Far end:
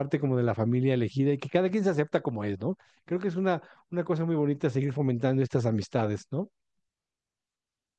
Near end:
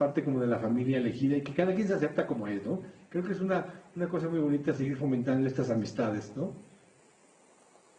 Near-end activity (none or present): none